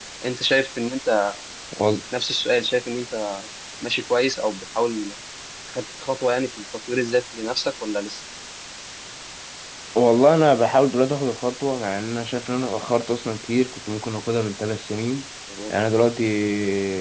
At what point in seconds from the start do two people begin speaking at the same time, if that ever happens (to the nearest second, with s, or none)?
none